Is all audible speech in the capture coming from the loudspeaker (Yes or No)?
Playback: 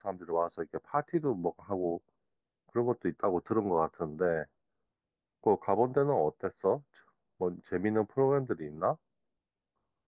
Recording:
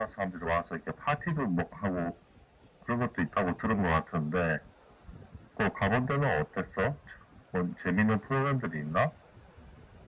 Yes